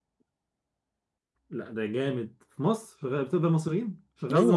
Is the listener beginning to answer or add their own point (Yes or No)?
Yes